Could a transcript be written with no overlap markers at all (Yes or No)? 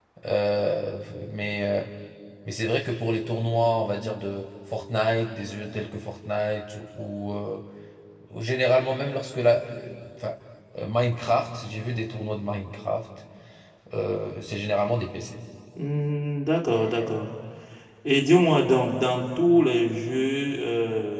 Yes